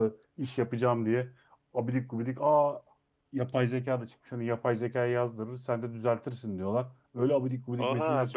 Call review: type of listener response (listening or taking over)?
taking over